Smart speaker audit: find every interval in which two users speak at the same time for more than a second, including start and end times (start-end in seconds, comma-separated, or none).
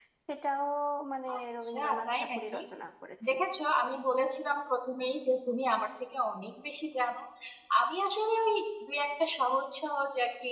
1.4-2.6